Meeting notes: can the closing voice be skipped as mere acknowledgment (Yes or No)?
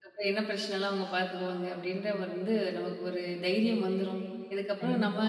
Yes